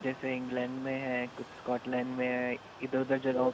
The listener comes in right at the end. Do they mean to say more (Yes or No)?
No